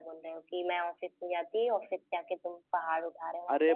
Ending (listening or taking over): taking over